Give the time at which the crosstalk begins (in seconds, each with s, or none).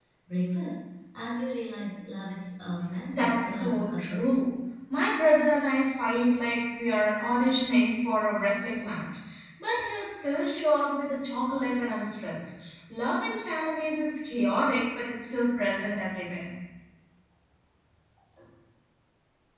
3.1 s